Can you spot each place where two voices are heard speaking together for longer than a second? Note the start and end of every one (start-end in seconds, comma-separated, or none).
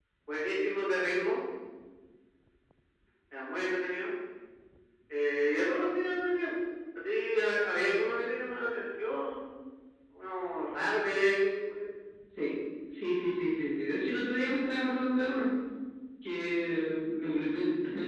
none